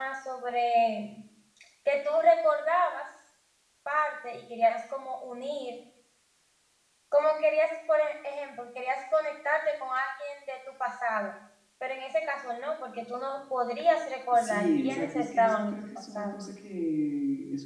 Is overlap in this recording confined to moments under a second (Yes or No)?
No